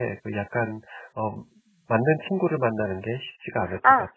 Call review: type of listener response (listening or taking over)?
taking over